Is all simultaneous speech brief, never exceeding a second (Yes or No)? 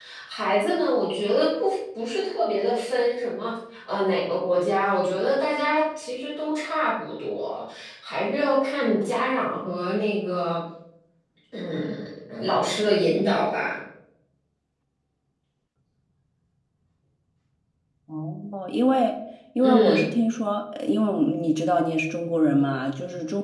Yes